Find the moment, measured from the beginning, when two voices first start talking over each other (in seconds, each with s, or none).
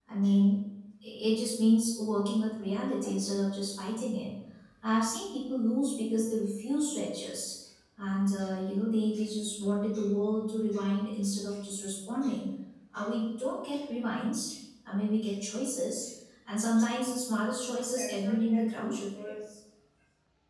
17.9 s